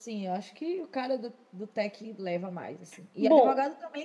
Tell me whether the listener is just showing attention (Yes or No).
Yes